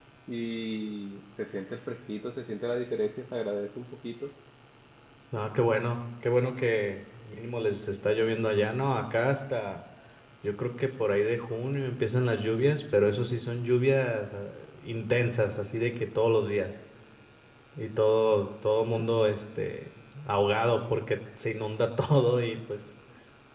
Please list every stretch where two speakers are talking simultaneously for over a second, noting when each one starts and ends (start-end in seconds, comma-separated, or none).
none